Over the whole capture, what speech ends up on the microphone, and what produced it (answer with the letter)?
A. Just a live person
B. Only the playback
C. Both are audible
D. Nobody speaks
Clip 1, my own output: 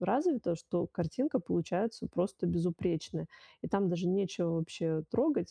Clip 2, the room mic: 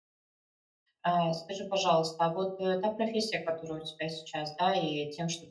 A